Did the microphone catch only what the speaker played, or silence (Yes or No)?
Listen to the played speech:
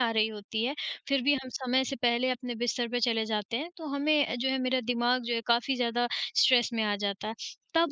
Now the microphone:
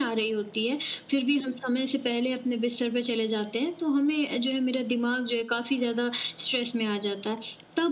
Yes